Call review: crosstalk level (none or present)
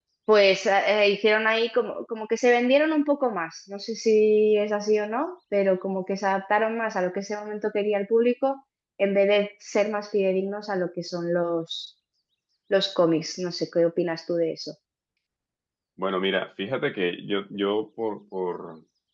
none